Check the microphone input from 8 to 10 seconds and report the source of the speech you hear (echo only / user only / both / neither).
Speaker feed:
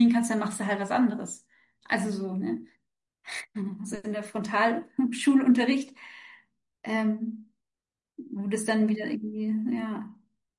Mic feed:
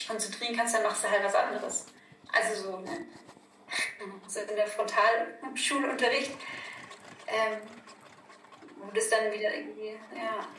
echo only